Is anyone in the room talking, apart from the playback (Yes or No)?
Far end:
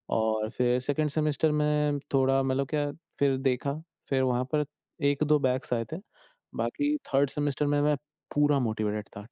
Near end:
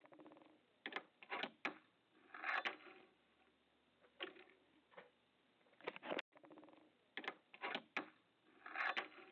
No